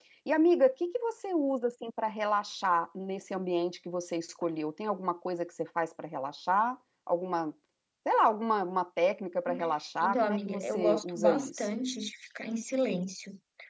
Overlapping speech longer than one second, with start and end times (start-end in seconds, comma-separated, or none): 10.0-11.7